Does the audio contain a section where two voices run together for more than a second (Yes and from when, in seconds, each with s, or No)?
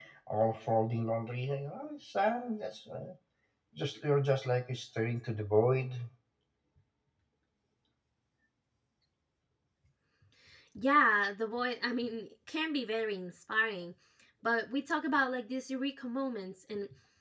No